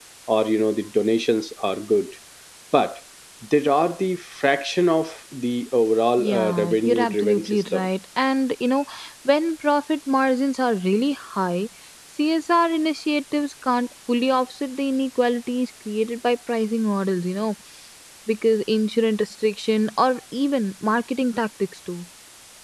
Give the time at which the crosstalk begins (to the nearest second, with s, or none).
6 s